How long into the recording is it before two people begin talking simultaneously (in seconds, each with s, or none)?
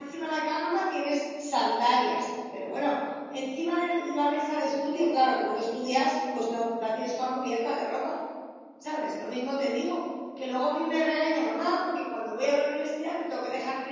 none